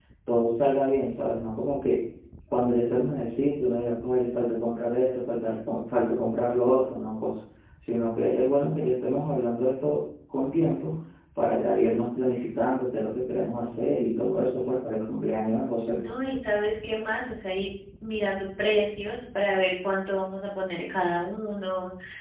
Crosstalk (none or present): none